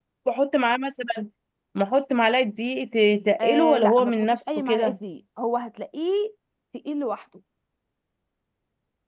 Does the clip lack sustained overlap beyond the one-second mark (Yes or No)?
No